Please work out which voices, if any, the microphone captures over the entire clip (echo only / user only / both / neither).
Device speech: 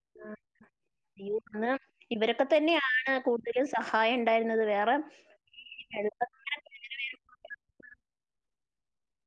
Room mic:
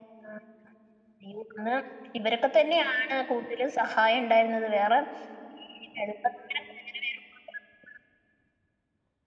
echo only